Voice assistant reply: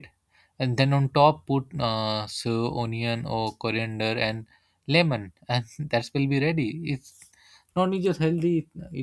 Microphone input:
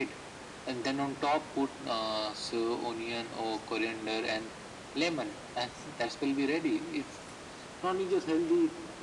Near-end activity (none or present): none